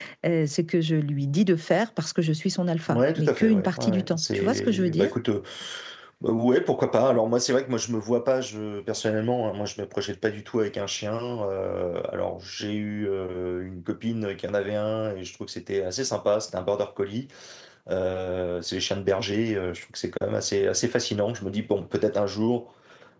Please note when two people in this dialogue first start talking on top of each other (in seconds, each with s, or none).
2.9 s